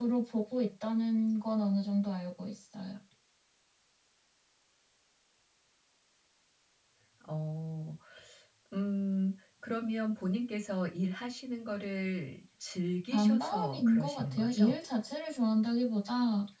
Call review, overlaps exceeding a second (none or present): present